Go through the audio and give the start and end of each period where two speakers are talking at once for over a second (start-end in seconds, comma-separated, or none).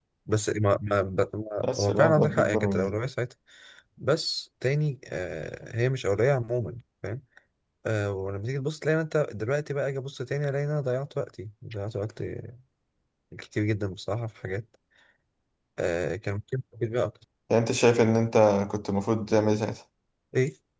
1.6-3.0